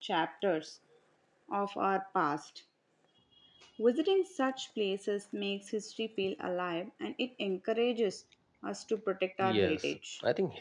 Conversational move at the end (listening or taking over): taking over